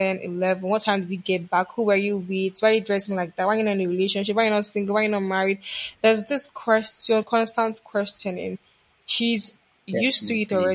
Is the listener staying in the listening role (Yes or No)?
Yes